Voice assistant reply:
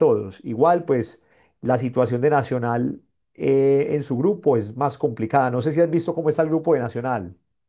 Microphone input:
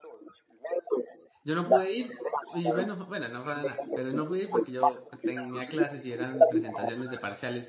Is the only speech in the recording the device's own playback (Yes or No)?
No